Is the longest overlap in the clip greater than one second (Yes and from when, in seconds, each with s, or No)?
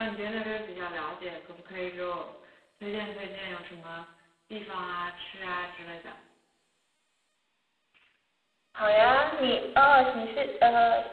No